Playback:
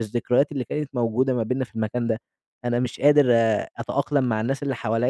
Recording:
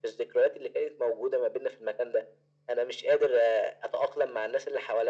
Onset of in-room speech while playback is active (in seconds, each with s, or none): none